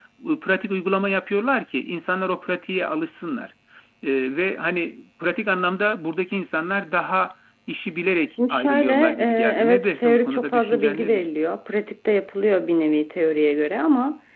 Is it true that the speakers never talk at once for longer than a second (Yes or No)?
No